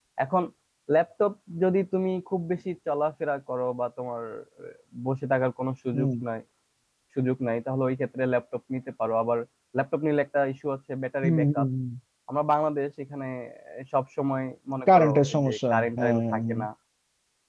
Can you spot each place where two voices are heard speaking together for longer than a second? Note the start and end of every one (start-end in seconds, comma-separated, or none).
14.9-16.6